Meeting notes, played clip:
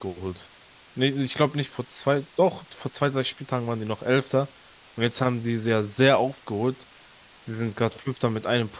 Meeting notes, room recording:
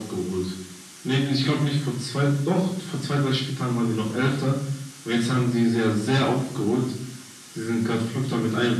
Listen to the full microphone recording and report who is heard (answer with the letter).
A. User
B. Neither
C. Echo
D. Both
C